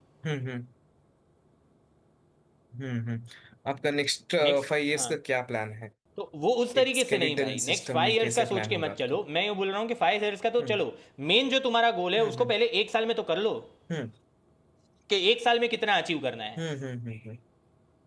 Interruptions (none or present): present